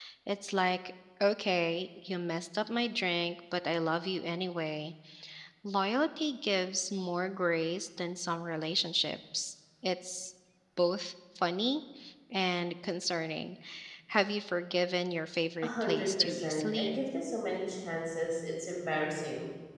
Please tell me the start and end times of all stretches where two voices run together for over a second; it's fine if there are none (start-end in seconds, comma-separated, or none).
15.6-17.0